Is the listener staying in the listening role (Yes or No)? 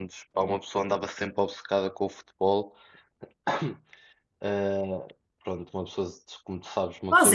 No